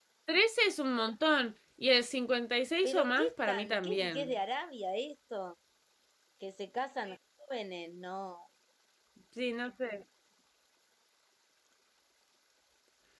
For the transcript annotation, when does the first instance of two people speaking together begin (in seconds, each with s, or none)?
2.8 s